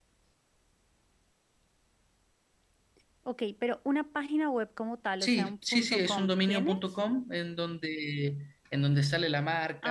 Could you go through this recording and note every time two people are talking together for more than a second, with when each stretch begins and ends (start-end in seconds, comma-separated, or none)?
5.2-6.8